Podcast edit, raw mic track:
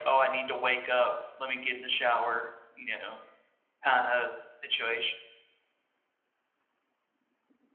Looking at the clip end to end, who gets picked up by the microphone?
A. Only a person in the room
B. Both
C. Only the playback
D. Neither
C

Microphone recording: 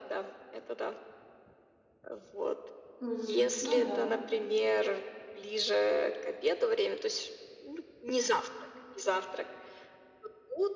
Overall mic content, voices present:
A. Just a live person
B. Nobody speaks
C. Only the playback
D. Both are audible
D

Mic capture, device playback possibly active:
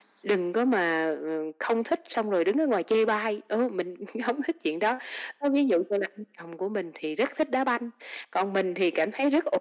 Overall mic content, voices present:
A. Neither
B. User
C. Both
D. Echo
D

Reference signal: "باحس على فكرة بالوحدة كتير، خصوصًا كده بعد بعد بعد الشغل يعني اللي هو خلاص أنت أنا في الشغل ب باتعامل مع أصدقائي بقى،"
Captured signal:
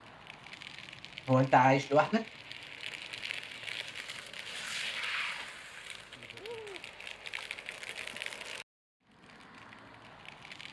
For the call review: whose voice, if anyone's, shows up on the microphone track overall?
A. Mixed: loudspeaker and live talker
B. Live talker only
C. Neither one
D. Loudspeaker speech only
B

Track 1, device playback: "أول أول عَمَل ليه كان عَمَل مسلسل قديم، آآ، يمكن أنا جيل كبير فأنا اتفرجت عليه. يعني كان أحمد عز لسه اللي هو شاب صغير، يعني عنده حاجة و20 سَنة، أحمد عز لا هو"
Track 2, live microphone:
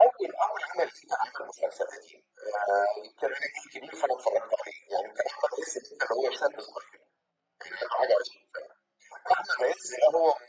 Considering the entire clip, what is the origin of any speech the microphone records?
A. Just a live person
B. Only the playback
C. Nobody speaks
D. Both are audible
B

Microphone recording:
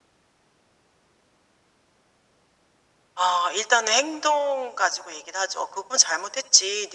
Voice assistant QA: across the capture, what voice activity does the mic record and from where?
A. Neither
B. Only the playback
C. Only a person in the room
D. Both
B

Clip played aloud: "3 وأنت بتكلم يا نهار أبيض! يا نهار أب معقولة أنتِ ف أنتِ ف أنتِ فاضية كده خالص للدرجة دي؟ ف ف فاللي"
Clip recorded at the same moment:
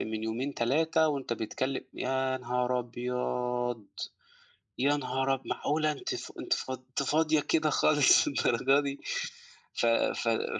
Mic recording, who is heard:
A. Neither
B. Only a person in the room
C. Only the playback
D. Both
C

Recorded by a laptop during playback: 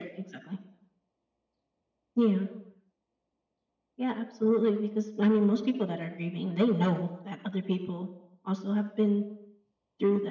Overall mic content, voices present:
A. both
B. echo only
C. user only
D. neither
B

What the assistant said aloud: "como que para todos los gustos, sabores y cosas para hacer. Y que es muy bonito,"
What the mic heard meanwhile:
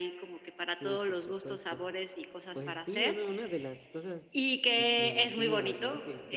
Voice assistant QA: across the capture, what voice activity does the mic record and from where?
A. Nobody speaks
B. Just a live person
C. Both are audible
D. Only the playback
C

